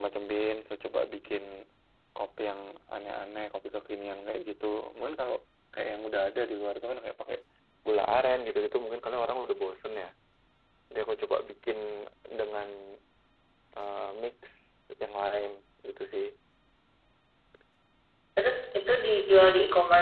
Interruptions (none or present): none